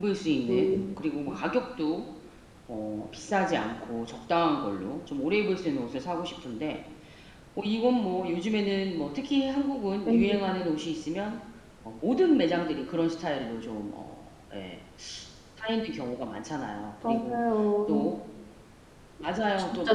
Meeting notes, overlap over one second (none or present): none